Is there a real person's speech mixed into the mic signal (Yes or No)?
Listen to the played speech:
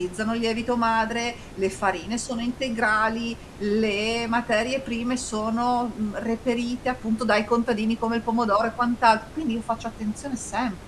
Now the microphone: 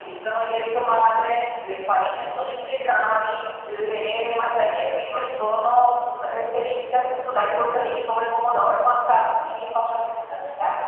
No